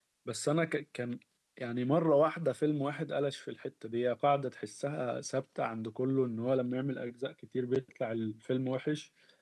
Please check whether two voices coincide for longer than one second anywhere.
No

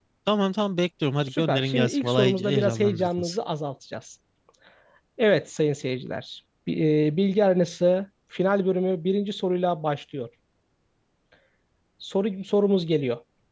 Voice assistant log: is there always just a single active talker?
No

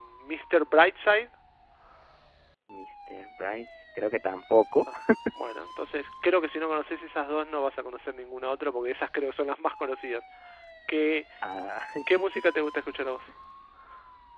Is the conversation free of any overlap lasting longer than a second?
Yes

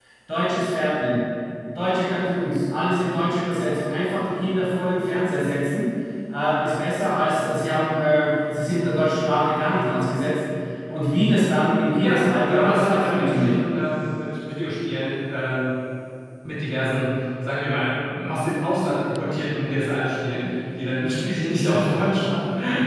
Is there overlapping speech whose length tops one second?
Yes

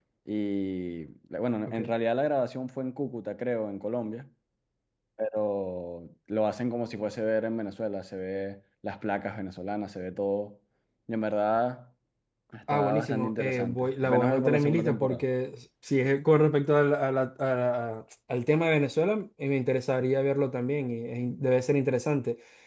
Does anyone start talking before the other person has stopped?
Yes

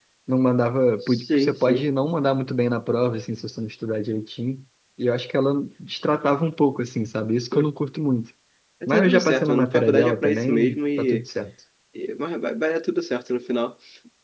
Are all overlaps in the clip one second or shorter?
No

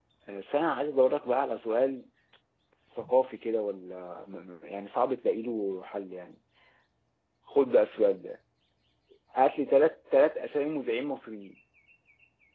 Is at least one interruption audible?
No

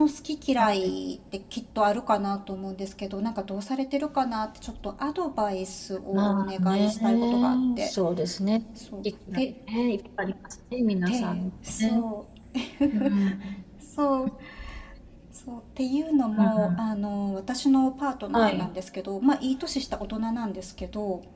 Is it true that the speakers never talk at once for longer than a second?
No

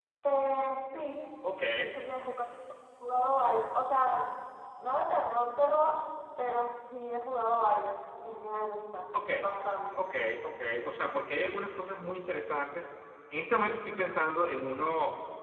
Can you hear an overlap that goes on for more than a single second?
No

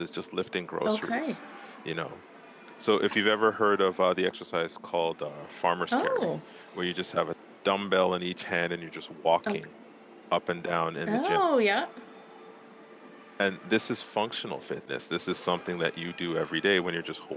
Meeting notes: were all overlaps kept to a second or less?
Yes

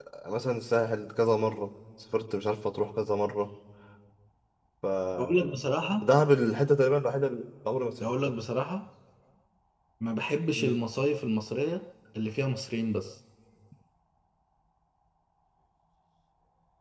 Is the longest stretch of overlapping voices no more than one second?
Yes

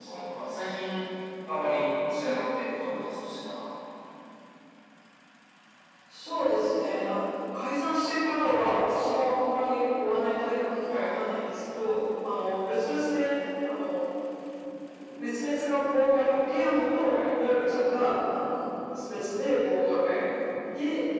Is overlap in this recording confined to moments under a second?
Yes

